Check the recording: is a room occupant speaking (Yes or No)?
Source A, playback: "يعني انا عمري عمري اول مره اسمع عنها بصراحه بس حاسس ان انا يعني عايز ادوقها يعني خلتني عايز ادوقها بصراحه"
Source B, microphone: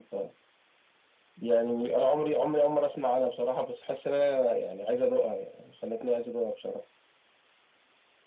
No